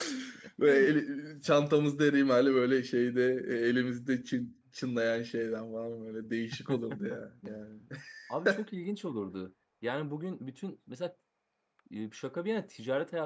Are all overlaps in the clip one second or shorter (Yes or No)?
Yes